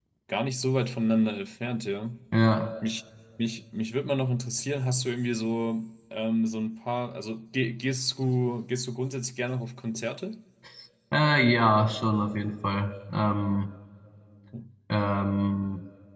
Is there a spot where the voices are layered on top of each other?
No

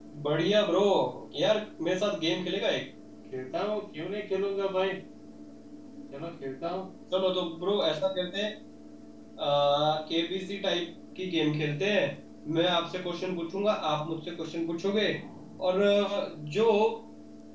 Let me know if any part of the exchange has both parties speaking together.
No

